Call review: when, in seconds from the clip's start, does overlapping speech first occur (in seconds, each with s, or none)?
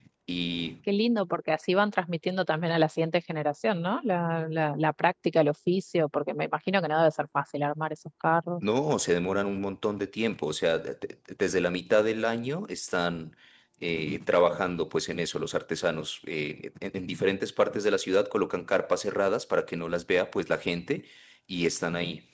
none